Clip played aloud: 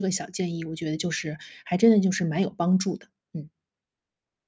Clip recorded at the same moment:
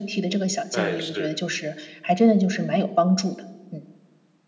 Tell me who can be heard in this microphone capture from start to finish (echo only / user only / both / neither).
both